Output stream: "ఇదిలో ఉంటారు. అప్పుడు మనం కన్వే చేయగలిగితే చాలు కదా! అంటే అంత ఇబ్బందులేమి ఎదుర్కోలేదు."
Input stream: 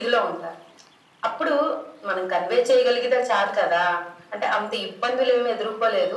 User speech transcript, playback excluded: none

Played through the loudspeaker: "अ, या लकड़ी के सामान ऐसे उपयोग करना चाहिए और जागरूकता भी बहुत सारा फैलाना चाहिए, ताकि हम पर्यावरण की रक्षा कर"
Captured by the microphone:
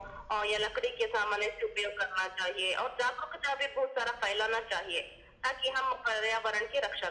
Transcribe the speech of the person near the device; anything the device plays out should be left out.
none

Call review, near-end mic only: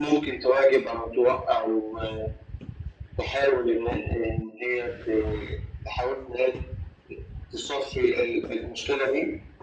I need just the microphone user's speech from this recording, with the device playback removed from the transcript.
none

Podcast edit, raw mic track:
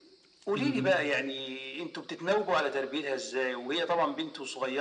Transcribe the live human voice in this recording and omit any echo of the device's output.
اهم،

